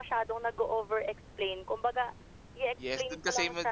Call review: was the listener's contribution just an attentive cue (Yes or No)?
No